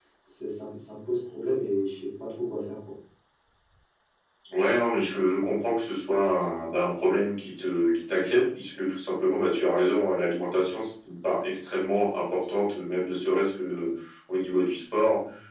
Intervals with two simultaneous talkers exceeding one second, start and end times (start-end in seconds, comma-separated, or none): none